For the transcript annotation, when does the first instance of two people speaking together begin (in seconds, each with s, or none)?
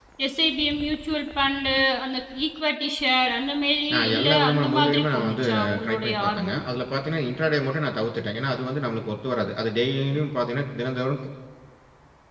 3.9 s